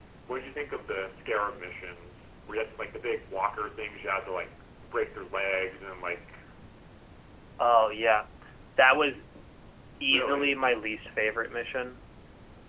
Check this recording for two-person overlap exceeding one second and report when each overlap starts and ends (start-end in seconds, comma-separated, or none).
none